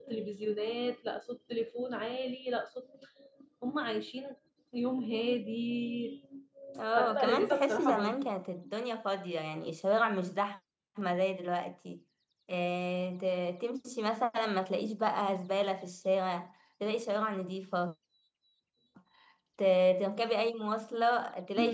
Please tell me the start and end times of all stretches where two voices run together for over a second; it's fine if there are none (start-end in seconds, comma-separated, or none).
6.9-8.1